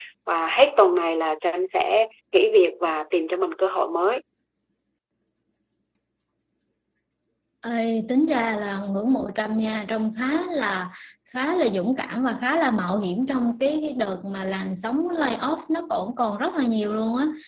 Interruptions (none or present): none